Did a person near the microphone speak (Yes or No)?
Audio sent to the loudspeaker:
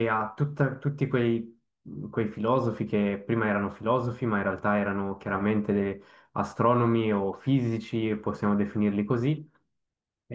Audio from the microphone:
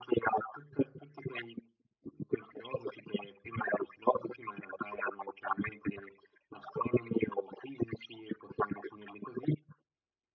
No